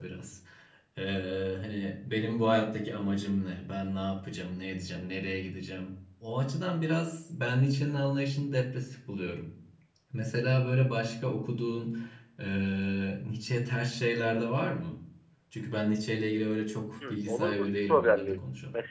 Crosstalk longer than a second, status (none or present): present